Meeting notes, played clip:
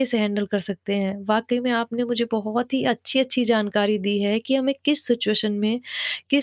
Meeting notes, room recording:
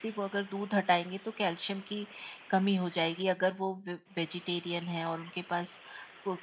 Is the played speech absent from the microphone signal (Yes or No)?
Yes